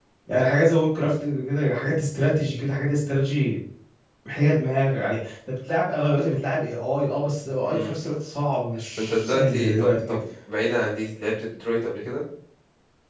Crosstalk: present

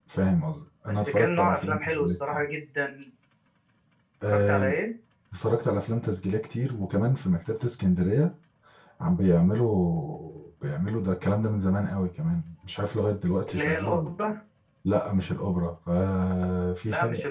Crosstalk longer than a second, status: present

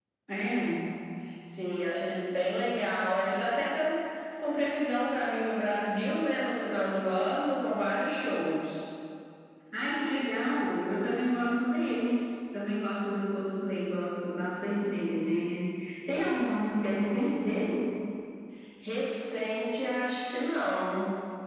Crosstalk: none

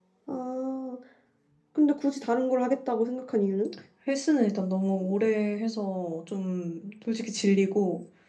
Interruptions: none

